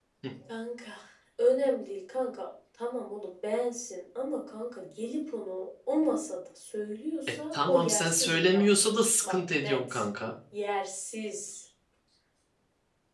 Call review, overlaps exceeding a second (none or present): present